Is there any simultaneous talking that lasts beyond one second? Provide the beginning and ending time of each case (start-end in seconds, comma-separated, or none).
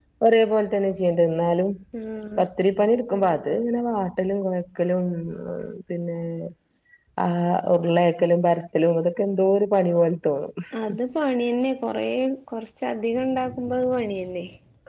none